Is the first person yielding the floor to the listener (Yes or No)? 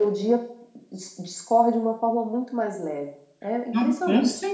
Yes